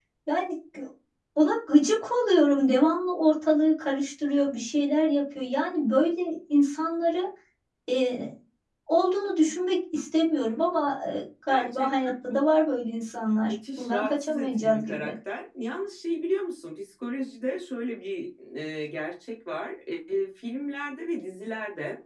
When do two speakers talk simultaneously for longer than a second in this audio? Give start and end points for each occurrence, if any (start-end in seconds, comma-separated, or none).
13.5-15.1